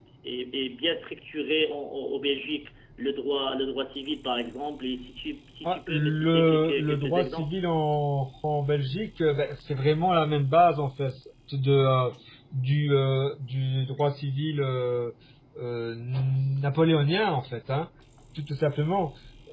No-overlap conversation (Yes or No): No